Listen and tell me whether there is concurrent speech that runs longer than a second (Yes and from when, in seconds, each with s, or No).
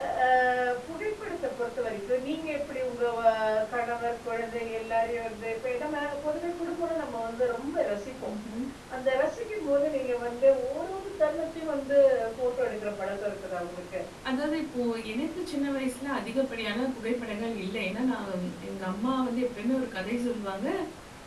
No